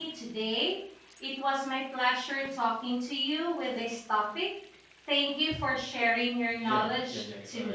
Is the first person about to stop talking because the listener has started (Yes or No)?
Yes